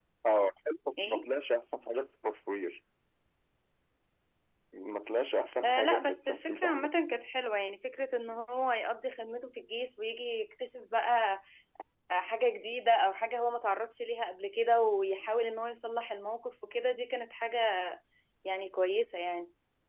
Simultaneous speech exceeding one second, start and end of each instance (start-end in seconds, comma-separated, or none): 5.6-6.9